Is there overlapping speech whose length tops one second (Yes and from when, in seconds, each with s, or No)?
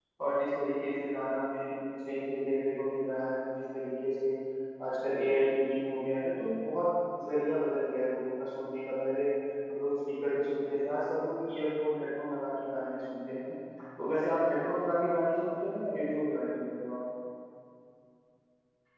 No